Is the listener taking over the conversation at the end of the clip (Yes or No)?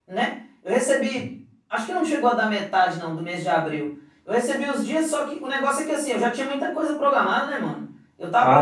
Yes